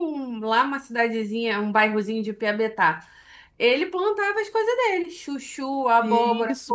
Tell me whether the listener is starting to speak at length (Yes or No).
Yes